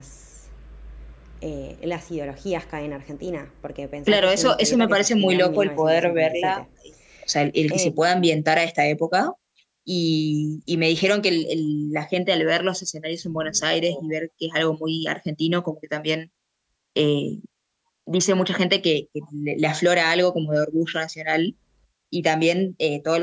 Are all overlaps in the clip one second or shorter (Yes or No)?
No